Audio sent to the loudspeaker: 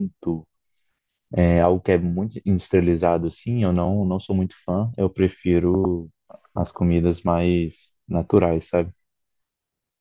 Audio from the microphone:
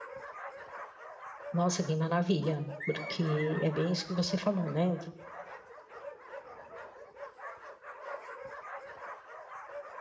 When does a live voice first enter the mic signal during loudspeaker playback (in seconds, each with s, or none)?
1.5 s